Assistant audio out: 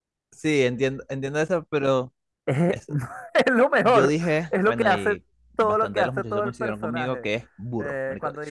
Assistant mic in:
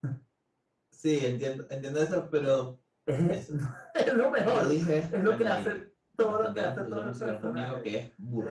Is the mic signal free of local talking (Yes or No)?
Yes